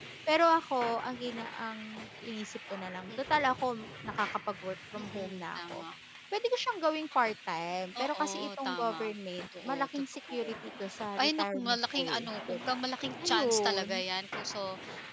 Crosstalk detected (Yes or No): Yes